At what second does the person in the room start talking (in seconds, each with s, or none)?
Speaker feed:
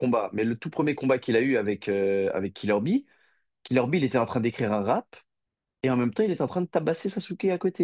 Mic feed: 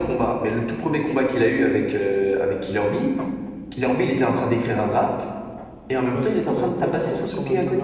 6.1 s